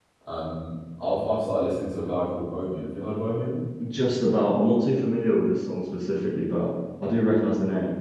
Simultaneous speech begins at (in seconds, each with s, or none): none